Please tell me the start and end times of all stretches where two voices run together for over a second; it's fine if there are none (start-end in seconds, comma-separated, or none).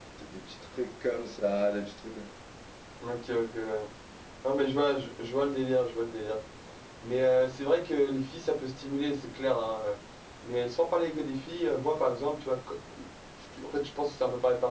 none